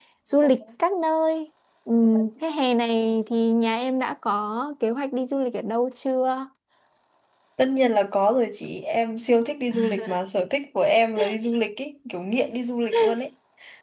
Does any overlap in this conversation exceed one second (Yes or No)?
No